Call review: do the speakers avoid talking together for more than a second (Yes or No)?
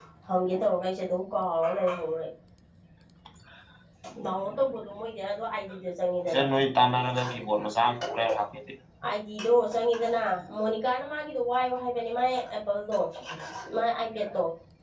Yes